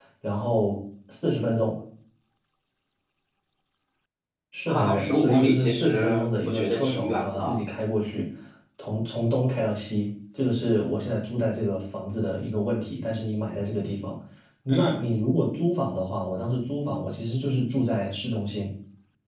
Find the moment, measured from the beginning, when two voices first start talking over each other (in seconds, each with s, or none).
4.7 s